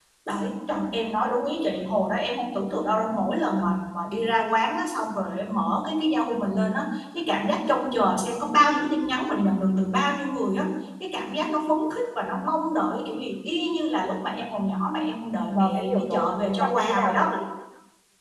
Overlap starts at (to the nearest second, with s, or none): 16 s